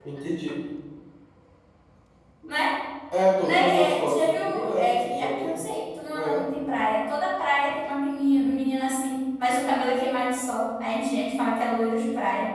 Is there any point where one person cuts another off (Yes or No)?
Yes